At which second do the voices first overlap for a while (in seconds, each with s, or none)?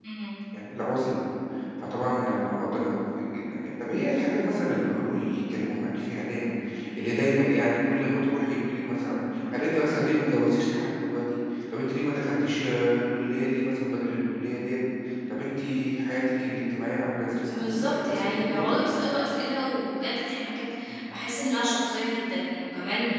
17.4 s